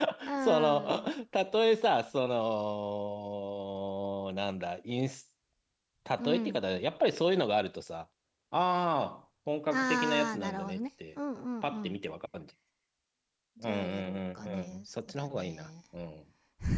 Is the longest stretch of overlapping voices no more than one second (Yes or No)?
No